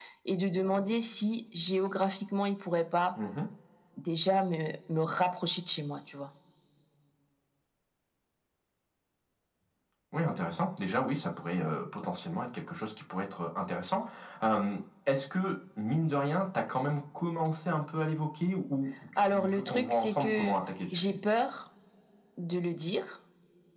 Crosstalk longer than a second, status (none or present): present